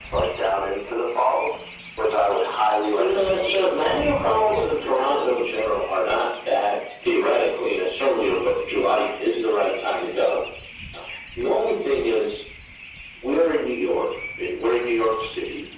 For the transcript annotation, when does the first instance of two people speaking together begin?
3.0 s

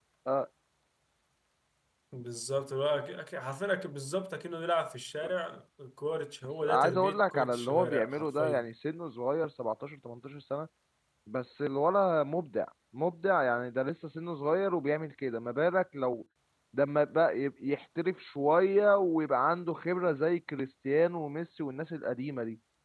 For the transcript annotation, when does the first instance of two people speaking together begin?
6.6 s

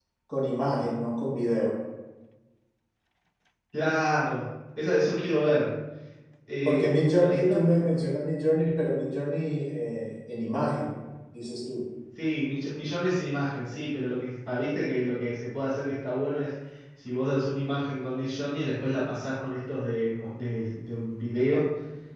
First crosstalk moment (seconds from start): 6.7 s

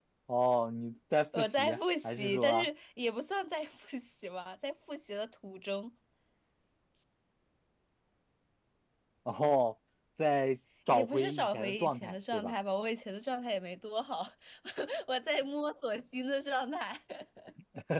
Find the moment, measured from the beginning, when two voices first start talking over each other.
1.4 s

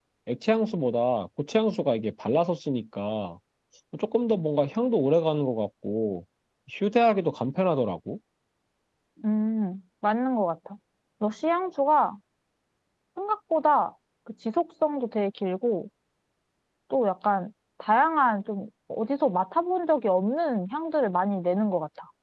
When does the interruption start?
none

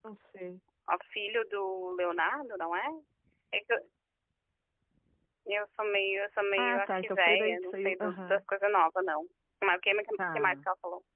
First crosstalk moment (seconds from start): 6.6 s

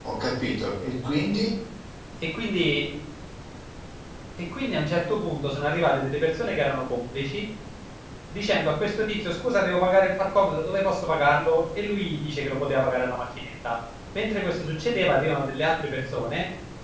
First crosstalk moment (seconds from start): none

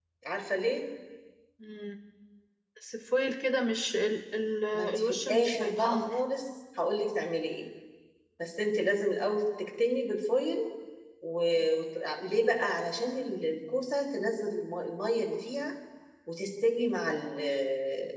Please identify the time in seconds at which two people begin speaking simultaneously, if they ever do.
4.7 s

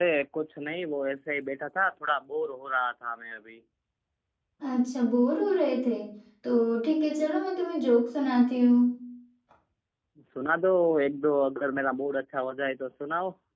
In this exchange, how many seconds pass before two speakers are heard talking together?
none

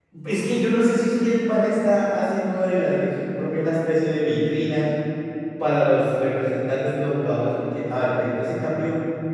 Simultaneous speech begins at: none

